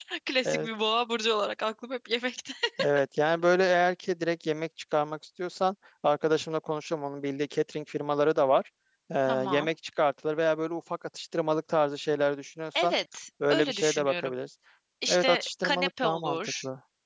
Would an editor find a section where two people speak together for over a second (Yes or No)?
Yes